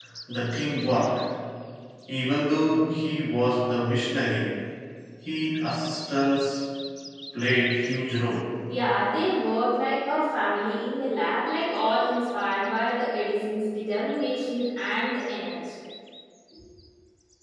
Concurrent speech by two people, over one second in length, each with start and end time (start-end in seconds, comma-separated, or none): none